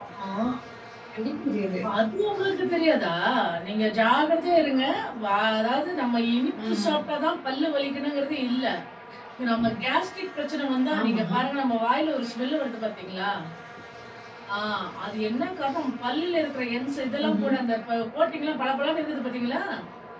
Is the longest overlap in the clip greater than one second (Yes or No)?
No